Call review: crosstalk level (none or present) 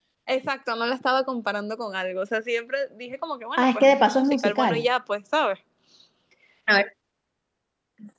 present